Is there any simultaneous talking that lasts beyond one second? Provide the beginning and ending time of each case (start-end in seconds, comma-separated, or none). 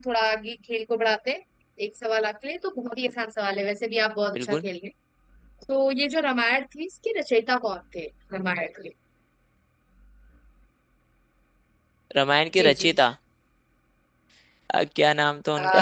none